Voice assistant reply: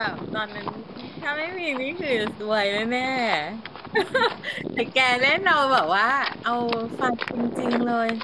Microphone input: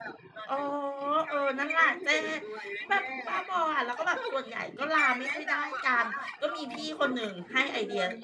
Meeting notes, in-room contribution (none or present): present